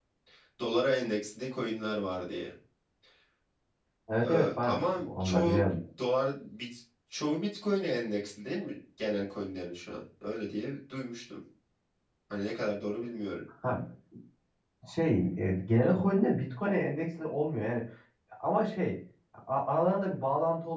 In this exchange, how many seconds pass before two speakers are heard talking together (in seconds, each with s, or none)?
4.2 s